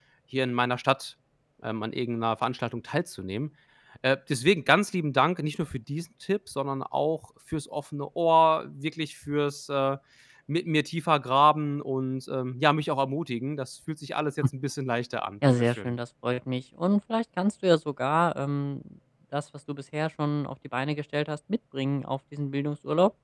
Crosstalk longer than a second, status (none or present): none